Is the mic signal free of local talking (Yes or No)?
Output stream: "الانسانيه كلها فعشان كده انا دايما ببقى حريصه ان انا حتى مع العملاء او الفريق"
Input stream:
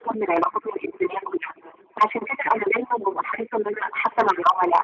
Yes